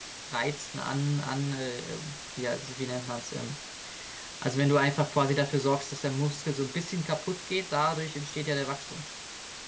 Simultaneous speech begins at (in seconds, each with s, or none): none